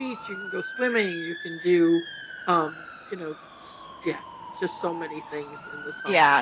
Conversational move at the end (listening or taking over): taking over